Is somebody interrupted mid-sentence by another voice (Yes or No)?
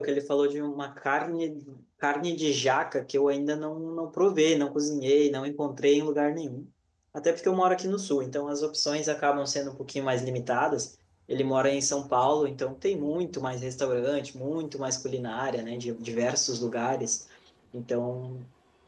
No